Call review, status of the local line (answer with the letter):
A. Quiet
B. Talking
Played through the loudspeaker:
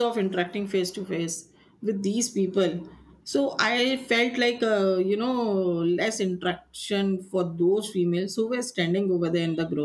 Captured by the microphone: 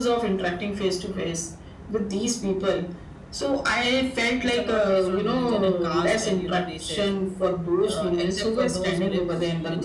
B